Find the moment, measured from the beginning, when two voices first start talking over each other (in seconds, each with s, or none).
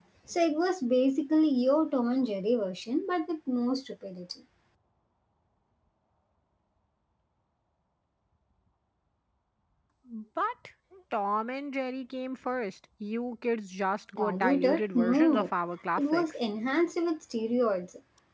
14.2 s